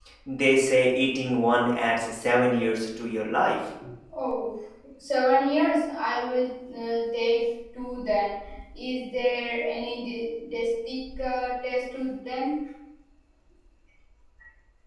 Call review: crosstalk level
none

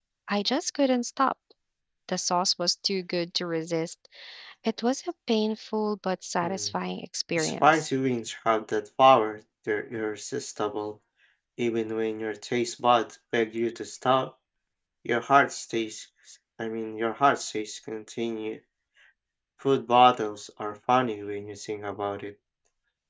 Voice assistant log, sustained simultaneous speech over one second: none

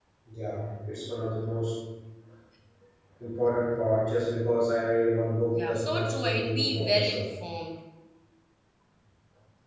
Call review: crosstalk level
present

